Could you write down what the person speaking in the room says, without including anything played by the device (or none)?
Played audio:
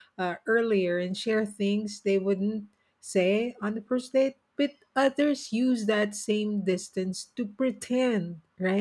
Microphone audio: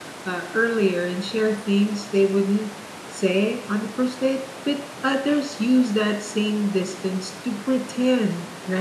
none